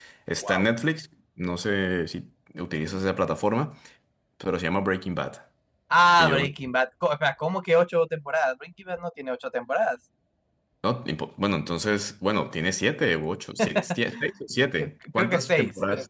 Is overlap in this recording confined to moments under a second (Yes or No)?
No